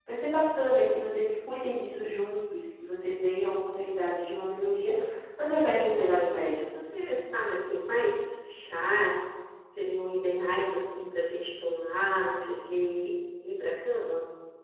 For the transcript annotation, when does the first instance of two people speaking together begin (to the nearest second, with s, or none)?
5 s